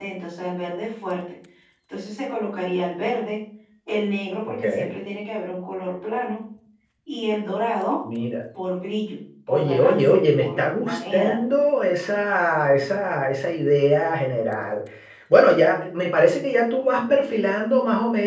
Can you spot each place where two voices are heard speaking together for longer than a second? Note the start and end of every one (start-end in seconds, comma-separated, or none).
9.5-11.4